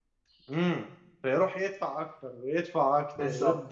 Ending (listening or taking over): taking over